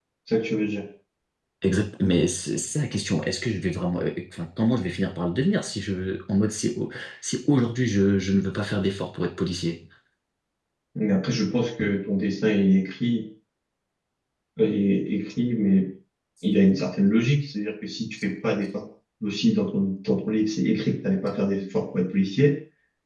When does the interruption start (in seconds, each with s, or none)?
none